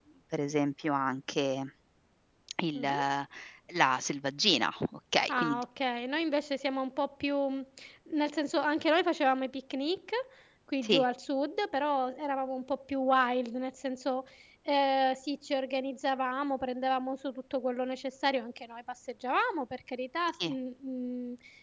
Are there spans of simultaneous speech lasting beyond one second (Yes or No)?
No